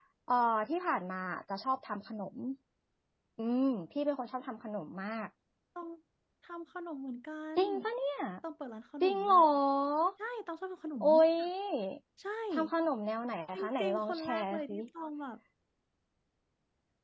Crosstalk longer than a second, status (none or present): present